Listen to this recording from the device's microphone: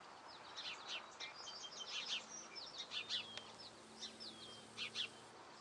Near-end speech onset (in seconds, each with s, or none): none